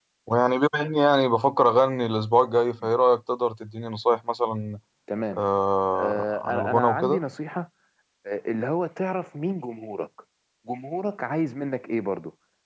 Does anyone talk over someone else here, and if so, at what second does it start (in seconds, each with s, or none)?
5.9 s